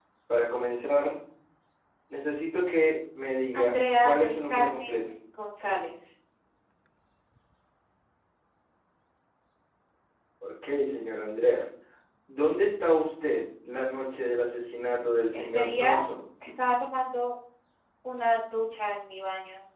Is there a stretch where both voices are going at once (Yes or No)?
Yes